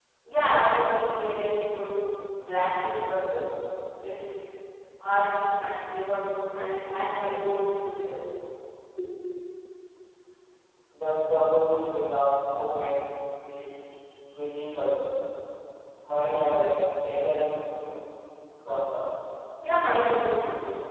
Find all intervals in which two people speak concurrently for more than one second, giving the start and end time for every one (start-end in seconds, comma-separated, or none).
none